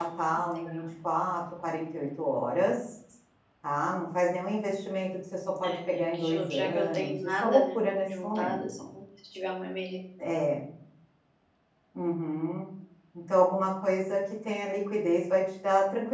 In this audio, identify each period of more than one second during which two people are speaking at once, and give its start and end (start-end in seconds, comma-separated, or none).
5.6-8.6